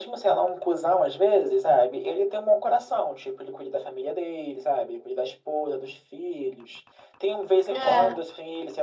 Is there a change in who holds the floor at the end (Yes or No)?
No